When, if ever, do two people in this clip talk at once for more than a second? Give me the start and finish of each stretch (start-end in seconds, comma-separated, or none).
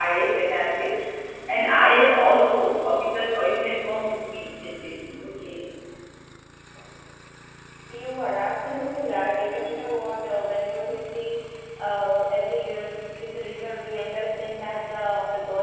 none